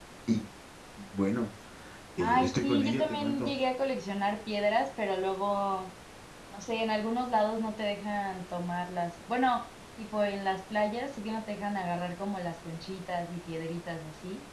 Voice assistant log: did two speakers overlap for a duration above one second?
Yes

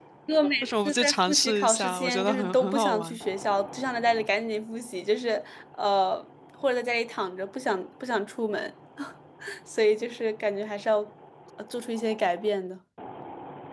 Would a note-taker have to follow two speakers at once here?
Yes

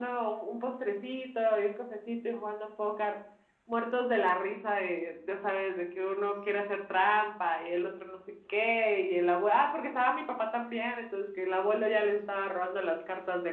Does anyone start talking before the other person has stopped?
No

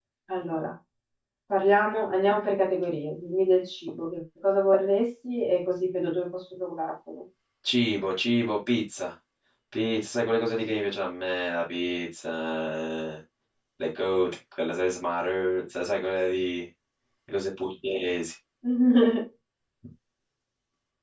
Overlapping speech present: No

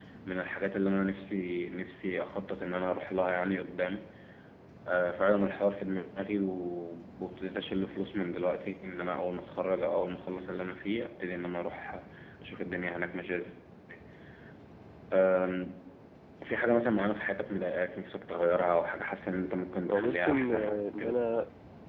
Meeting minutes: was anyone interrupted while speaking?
Yes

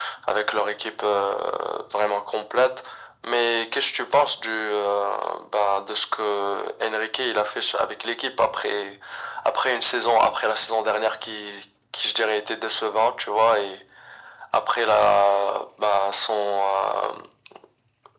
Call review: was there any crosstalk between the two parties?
No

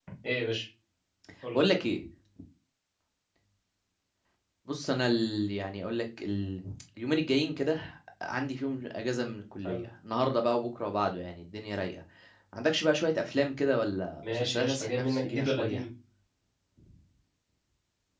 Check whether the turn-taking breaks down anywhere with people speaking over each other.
Yes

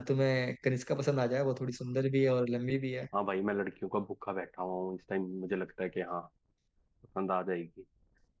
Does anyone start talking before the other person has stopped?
No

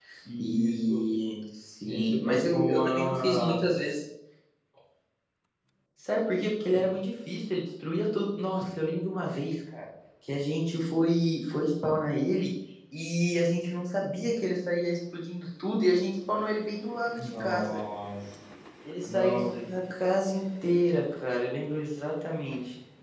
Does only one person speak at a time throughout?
No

